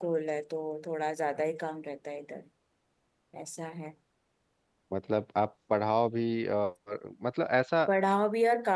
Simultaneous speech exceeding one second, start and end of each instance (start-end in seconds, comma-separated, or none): none